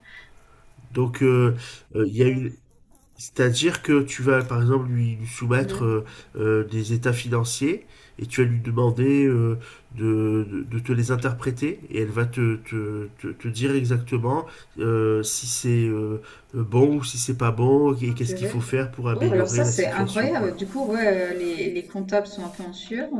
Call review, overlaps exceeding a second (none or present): present